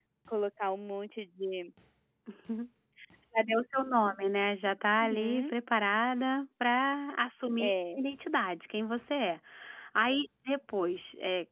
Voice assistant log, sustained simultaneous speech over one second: none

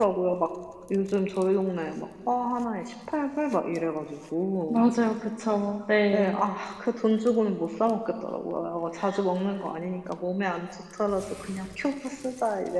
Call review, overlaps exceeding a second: none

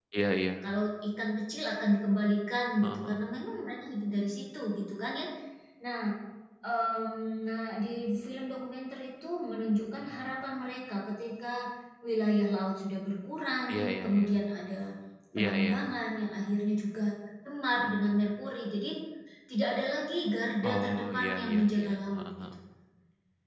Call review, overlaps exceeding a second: present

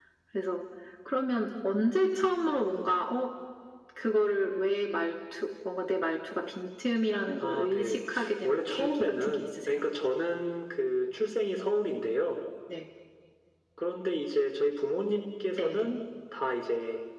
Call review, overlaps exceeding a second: present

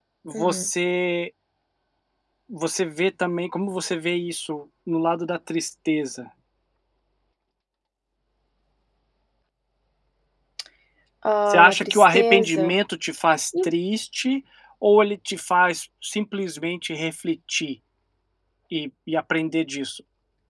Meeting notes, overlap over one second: present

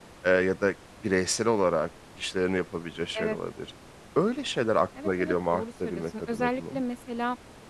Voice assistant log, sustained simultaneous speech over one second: present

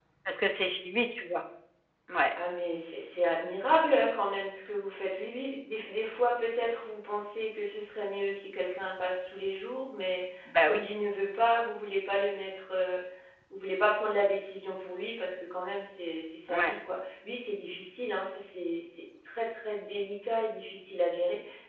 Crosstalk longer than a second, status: none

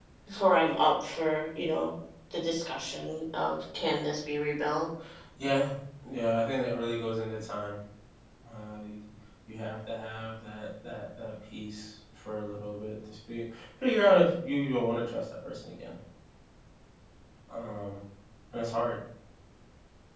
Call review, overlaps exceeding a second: none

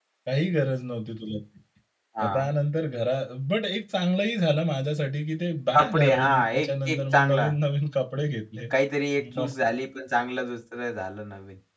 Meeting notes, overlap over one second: present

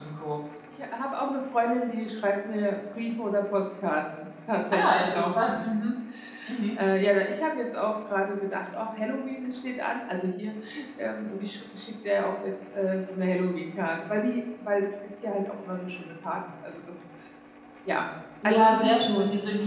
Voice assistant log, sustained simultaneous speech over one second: present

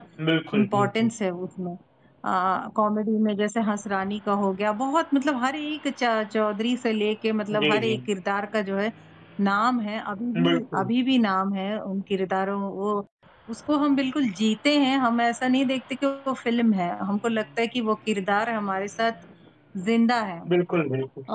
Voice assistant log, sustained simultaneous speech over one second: none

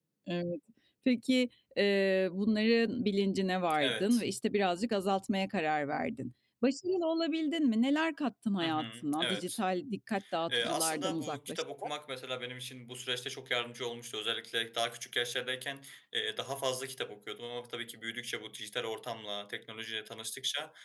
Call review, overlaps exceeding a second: present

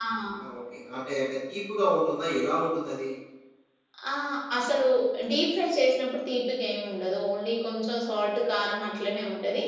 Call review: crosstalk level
none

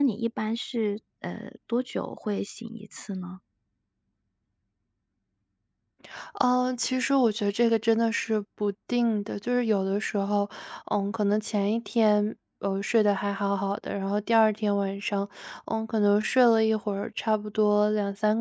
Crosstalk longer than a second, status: none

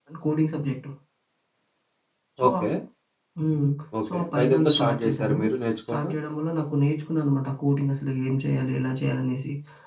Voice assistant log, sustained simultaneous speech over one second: present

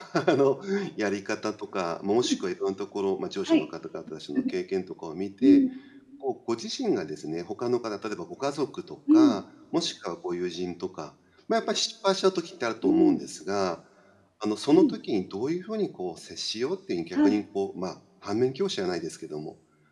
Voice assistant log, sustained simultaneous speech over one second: none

